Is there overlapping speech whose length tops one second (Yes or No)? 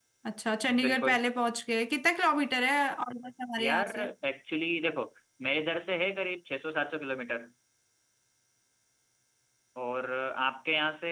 No